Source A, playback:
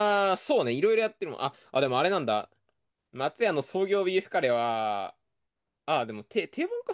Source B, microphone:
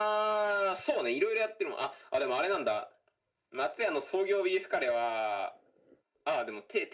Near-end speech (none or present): none